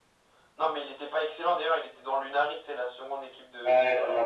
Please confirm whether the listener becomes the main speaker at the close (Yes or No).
Yes